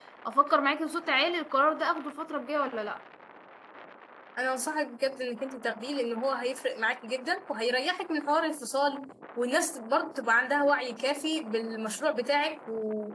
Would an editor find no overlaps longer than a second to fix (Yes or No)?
Yes